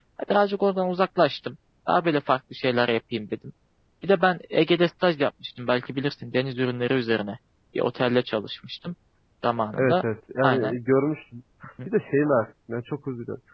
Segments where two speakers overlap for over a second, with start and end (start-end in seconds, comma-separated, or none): none